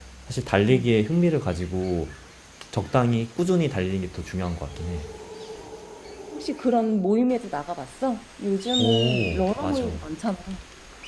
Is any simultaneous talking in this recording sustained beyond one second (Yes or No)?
Yes